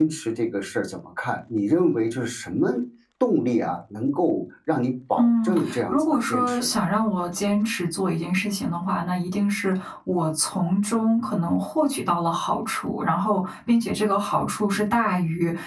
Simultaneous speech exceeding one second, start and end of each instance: 5.2-6.7

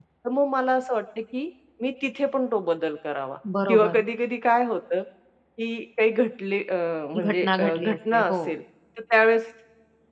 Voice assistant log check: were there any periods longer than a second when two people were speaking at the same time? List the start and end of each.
7.2-8.5

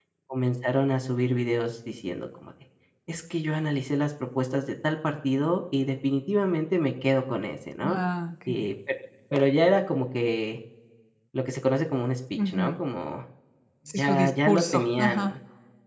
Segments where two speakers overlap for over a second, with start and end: 14.0-15.3

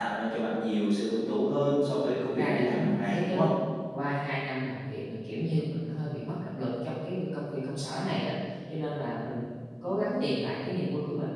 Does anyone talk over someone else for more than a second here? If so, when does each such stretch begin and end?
2.1-3.5

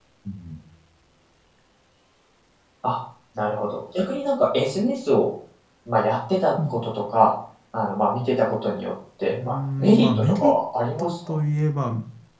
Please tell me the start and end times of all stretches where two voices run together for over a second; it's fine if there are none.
9.3-10.5

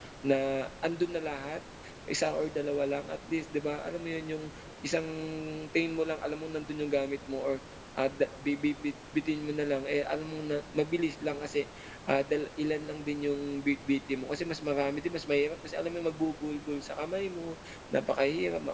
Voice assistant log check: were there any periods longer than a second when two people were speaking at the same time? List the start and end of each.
none

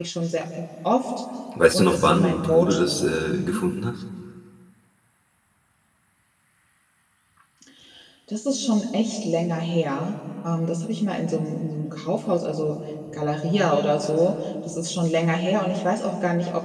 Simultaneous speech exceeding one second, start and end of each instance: 1.7-3.6

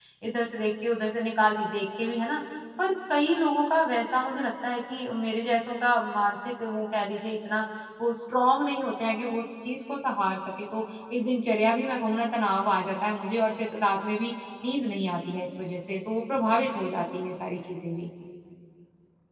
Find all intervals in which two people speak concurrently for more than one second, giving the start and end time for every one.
none

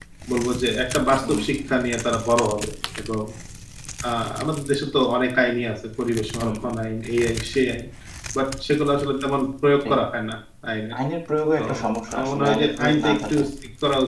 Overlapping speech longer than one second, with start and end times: 12.1-13.4

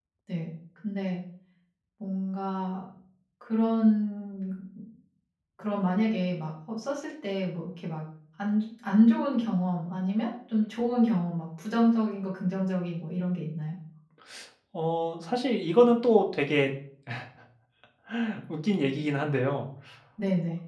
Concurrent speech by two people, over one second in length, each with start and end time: none

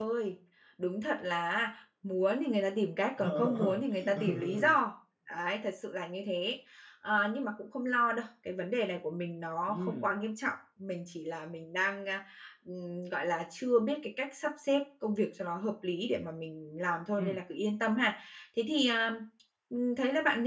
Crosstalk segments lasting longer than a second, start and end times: 3.2-4.8

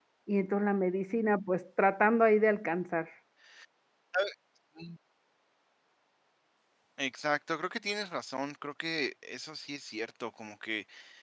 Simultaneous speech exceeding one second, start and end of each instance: none

